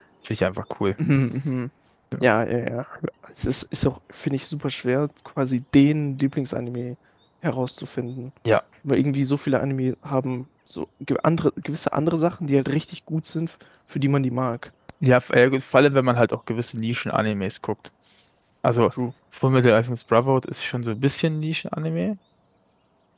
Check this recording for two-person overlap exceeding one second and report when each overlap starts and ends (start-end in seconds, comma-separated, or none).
none